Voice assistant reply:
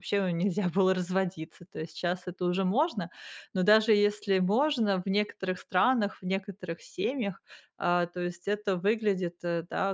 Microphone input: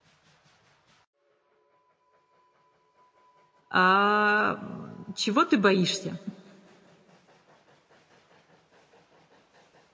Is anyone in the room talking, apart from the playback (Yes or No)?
Yes